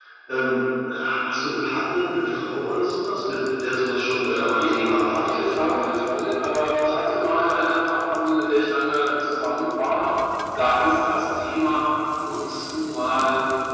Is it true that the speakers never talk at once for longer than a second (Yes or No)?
No